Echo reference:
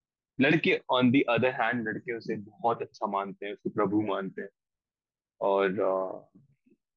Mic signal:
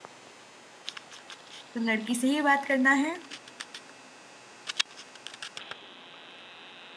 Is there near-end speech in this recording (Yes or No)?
Yes